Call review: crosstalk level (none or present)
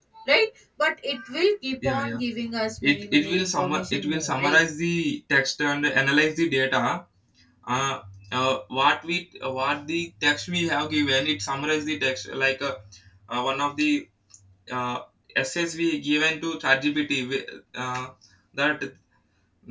present